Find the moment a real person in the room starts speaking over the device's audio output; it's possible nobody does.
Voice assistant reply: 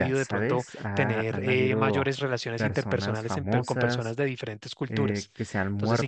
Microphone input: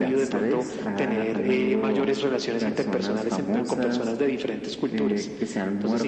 none

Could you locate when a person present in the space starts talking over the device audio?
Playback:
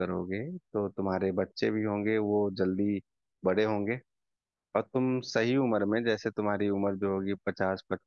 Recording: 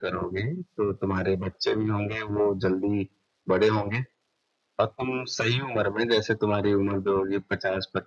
none

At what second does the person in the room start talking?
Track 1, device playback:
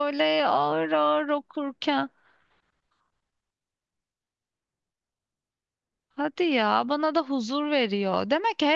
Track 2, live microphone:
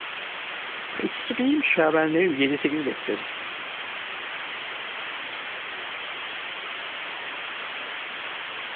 0.8 s

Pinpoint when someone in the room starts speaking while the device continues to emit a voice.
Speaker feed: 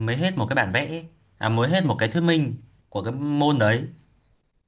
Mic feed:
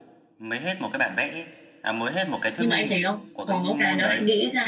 2.6 s

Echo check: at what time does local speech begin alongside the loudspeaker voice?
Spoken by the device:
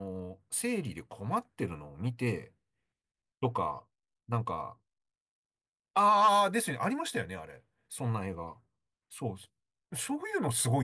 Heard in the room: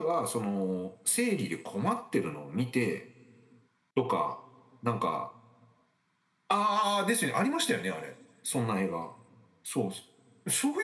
none

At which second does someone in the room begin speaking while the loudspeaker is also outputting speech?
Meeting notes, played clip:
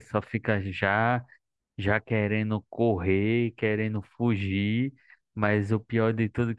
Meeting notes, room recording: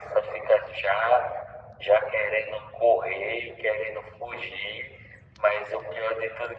none

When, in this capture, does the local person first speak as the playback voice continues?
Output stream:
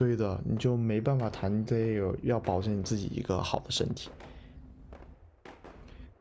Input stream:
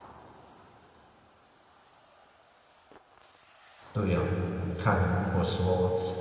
3.9 s

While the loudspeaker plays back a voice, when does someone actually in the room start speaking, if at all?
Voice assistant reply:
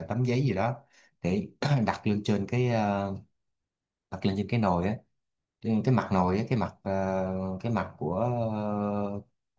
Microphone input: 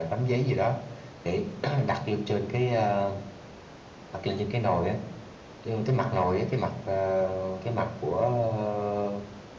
none

